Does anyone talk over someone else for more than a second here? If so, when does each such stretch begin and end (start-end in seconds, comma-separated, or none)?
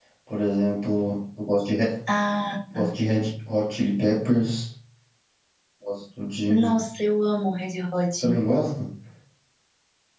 none